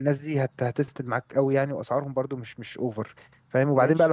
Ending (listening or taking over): listening